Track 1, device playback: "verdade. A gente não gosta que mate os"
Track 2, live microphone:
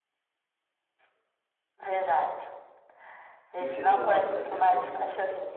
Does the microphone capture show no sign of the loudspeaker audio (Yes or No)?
No